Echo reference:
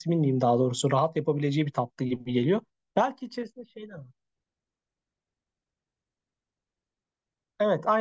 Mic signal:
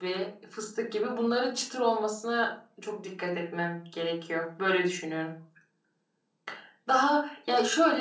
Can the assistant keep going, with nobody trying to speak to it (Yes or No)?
No